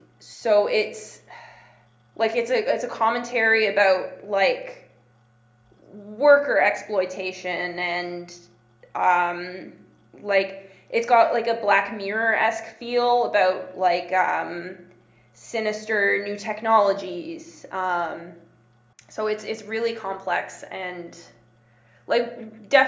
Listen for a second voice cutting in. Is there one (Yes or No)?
No